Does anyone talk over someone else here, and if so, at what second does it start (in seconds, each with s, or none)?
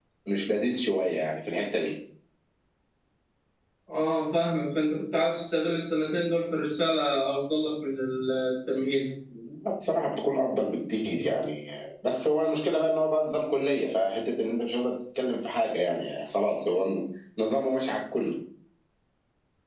none